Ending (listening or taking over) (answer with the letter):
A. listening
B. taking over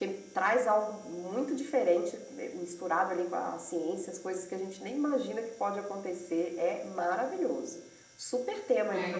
B